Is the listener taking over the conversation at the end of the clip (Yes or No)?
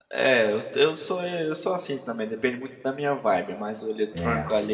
No